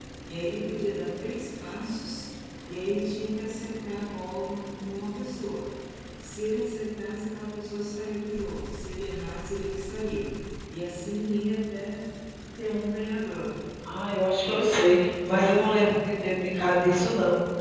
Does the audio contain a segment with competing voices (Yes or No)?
No